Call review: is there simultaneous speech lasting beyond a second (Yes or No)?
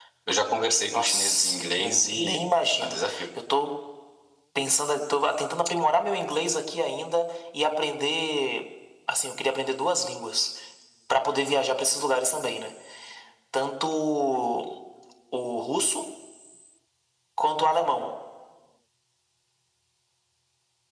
Yes